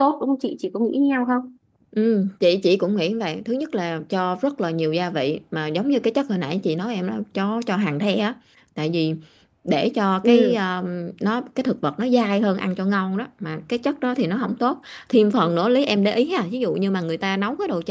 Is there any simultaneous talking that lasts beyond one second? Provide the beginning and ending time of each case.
none

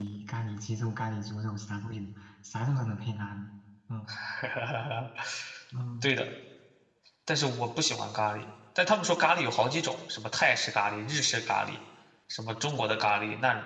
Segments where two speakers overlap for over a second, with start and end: none

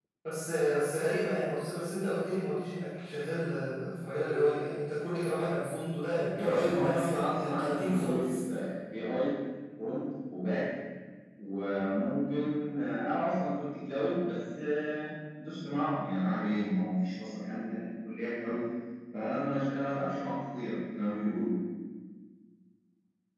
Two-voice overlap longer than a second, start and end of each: 6.3-8.4

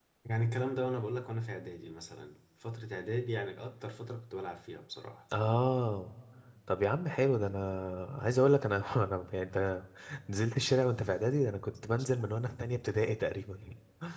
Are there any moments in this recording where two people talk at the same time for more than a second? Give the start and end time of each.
none

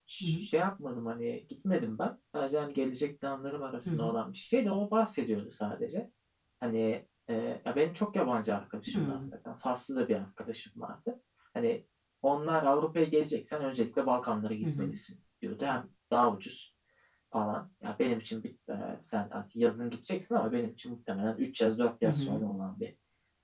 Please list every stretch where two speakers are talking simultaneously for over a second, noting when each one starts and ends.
none

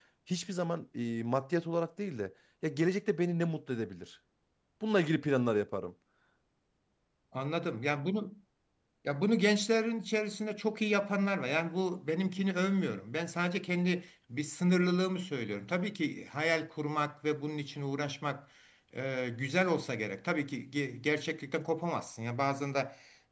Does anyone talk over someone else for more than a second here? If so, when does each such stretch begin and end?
none

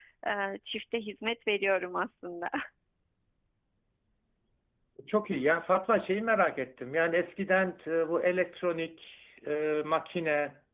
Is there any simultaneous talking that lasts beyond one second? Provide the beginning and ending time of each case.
none

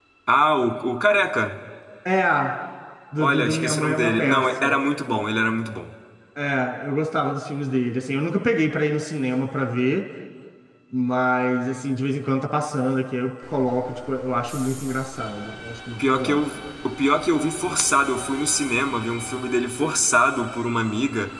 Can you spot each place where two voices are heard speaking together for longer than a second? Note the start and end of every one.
3.2-4.8

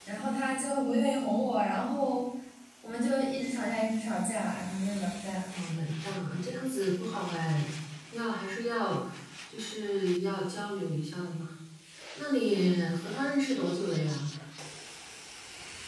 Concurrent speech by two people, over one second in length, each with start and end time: none

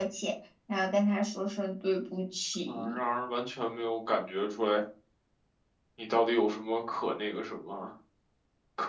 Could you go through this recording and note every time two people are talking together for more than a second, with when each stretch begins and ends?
none

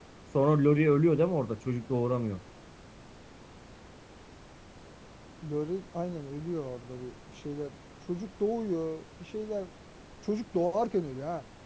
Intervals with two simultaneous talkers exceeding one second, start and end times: none

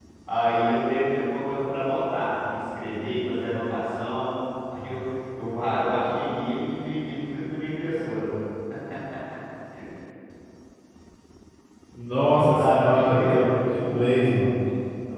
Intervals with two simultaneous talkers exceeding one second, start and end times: 12.6-14.6

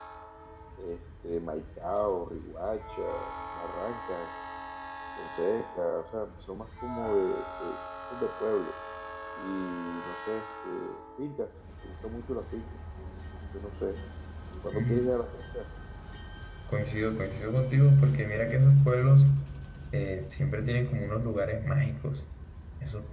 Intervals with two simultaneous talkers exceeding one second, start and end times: none

